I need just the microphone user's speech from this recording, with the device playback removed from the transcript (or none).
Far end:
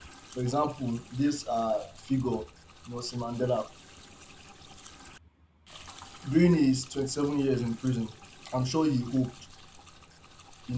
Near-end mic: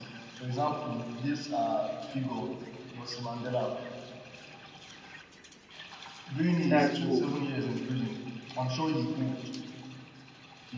that's hope